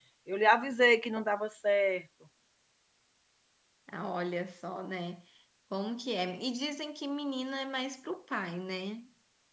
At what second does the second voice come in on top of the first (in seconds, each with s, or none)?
none